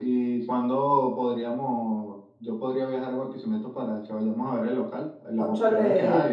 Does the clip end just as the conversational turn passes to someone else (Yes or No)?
No